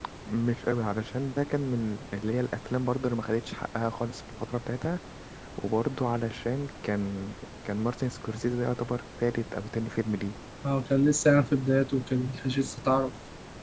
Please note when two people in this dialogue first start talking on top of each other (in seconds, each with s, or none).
none